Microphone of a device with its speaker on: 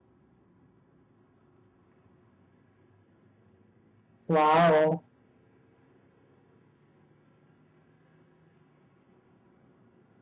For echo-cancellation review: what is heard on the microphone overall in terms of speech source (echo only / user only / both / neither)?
user only